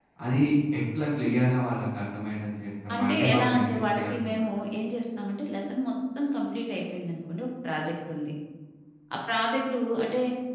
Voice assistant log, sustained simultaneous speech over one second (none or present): present